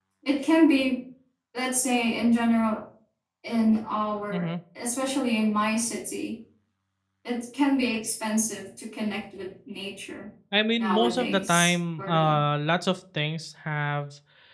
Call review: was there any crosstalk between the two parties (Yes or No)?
Yes